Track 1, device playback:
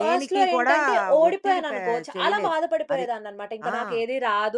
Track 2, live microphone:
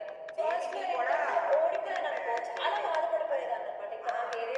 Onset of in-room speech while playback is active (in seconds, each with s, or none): none